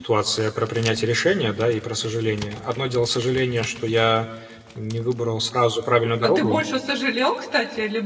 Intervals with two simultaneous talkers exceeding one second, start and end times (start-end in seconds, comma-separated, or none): none